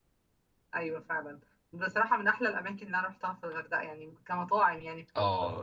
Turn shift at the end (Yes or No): Yes